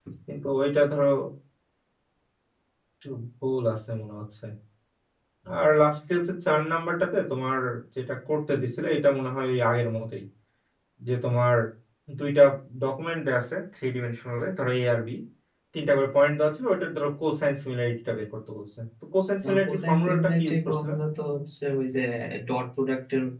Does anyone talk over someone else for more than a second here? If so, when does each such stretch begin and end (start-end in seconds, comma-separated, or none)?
19.6-20.9